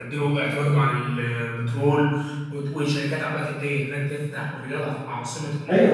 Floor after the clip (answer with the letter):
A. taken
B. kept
A